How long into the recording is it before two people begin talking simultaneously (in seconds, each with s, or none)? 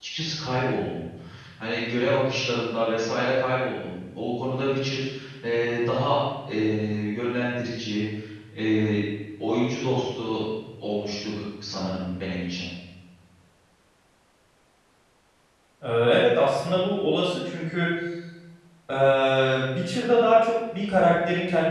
none